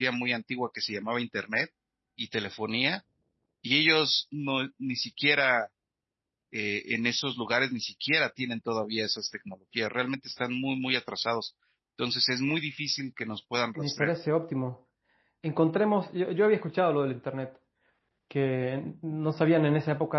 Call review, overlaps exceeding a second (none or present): none